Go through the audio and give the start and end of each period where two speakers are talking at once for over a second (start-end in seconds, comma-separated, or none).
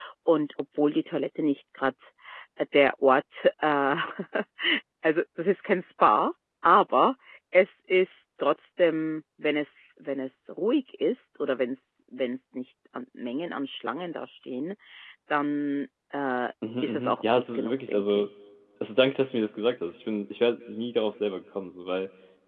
16.8-18.3